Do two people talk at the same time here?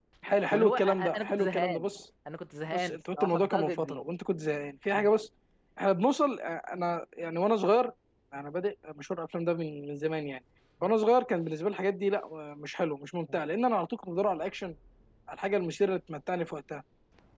Yes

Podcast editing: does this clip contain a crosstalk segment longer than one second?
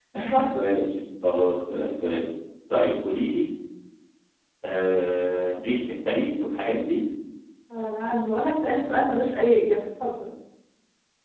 No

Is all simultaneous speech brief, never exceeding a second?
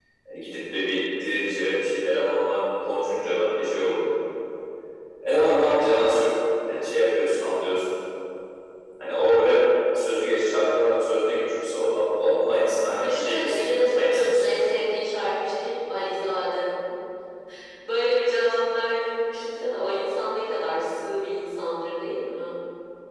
No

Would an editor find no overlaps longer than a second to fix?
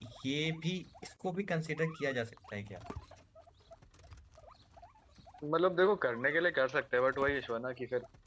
Yes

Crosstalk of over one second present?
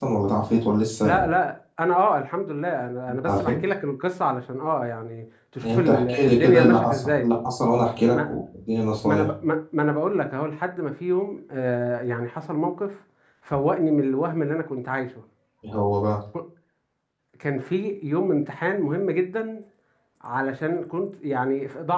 Yes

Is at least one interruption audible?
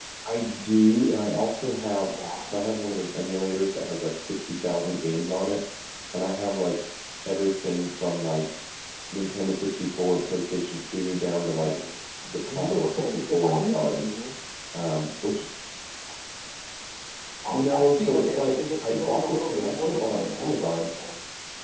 Yes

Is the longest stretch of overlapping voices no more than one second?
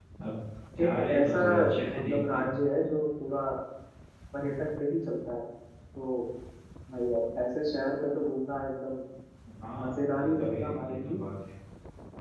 No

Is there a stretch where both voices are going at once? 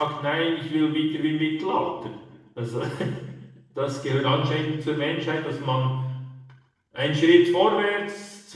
No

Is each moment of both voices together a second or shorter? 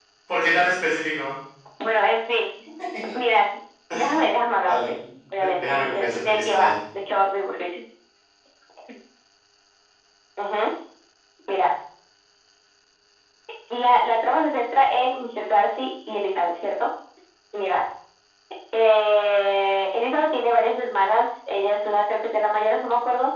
No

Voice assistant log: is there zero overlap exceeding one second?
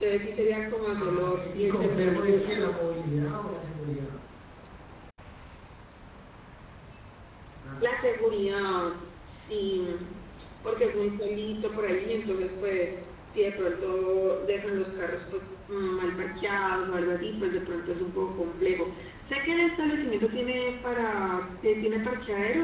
No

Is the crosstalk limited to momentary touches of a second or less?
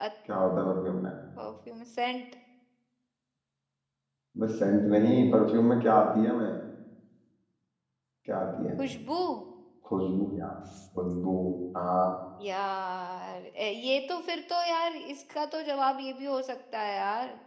Yes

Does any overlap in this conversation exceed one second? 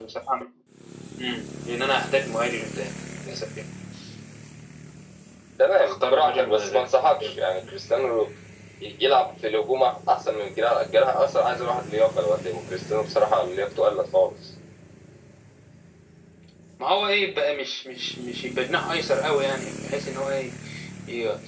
Yes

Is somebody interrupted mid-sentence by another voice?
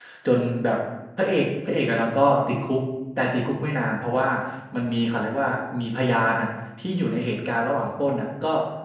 No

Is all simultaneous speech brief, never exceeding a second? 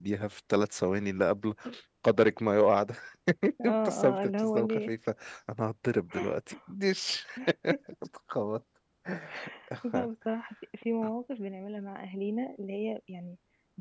No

